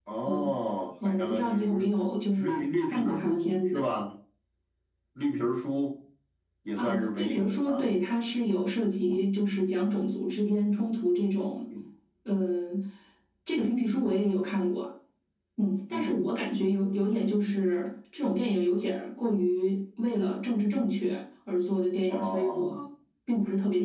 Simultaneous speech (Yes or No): Yes